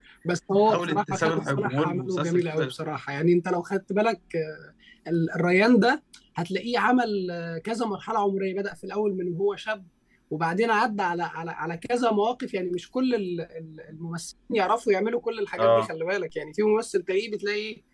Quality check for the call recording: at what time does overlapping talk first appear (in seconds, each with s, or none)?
0.7 s